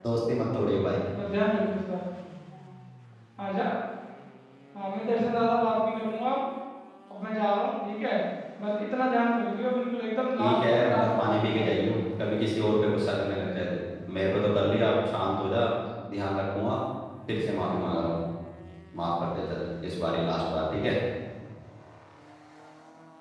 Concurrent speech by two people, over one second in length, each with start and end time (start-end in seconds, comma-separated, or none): 10.4-12.0